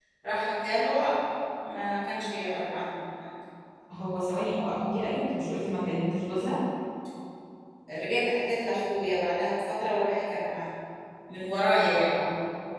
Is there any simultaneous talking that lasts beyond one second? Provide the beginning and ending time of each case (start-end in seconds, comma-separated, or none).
none